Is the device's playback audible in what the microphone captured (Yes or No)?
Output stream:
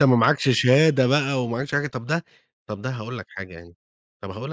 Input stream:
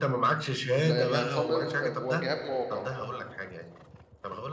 Yes